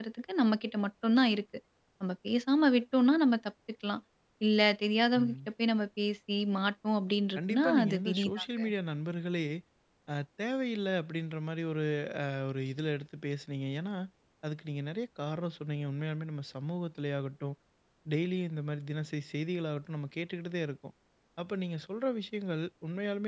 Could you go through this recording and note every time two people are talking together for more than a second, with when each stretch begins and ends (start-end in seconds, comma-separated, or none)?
7.4-8.6